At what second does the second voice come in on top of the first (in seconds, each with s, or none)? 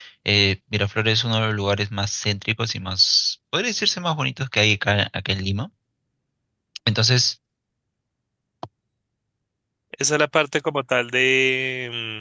none